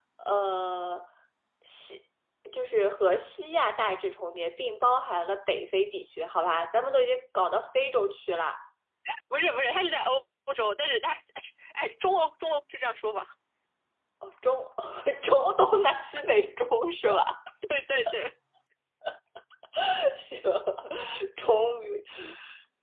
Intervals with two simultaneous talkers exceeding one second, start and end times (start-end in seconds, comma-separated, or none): none